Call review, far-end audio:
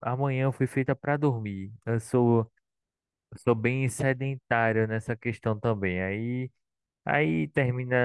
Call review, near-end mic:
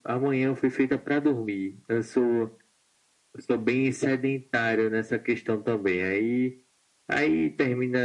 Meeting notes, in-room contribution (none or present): none